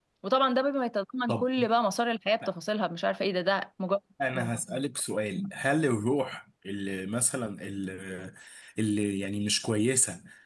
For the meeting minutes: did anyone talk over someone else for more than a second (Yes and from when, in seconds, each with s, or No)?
No